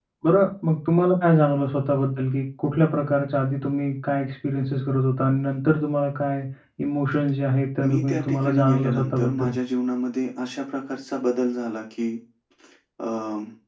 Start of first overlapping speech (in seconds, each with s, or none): 7.8 s